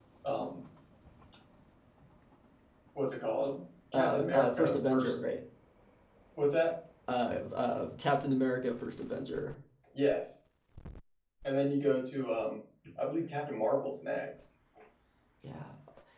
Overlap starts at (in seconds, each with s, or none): 3.9 s